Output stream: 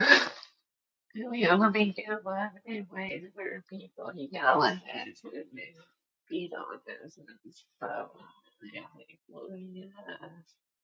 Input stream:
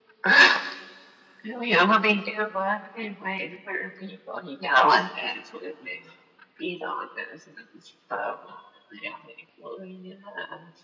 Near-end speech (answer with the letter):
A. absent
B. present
A